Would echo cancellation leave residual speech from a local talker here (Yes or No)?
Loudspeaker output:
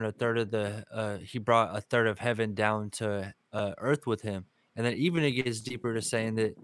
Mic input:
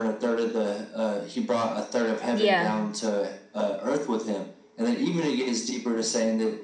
Yes